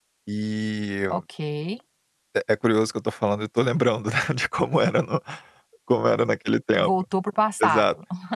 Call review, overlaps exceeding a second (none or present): none